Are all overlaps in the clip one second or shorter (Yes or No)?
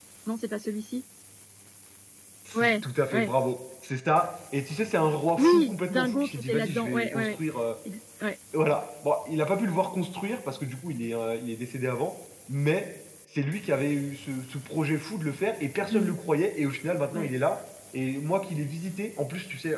No